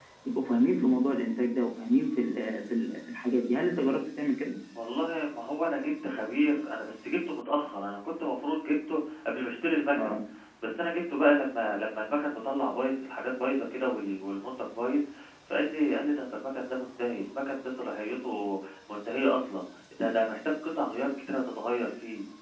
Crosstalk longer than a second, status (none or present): none